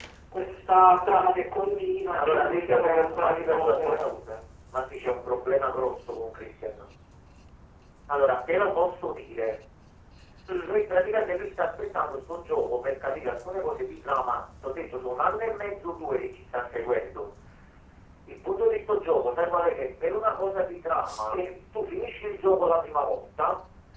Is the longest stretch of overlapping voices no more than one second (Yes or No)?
No